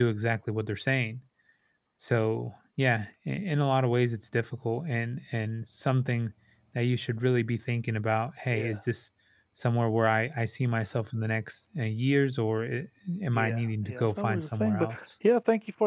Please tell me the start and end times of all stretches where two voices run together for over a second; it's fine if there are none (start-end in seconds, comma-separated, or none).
13.3-15.1